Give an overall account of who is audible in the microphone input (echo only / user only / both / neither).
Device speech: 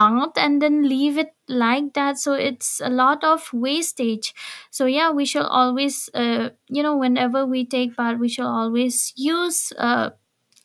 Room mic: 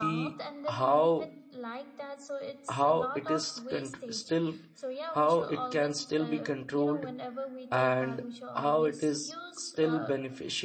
both